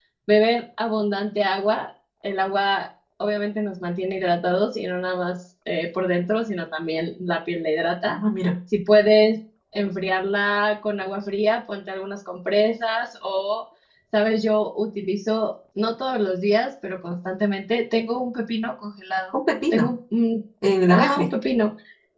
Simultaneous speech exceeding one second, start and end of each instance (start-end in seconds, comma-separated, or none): none